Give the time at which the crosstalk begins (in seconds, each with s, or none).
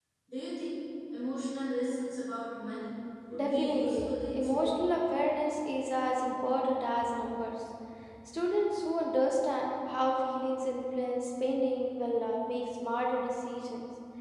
3.3 s